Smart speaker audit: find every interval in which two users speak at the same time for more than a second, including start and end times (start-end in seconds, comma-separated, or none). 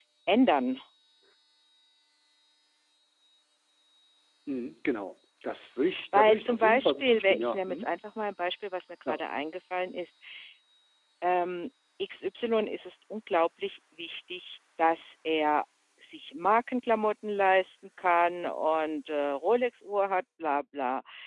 6.1-7.9